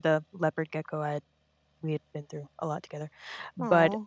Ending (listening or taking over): listening